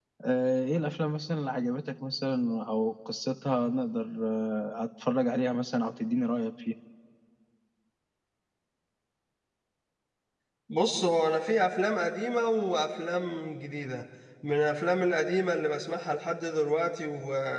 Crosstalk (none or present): none